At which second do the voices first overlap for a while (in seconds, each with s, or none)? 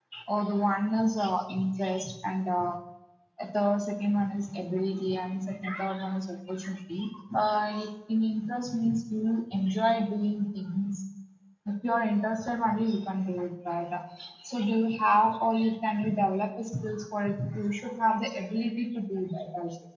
none